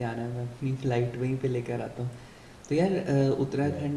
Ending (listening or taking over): listening